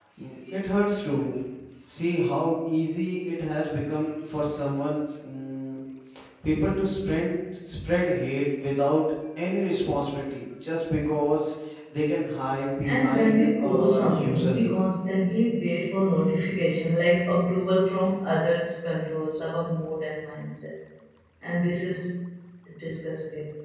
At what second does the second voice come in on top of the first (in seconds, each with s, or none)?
12.8 s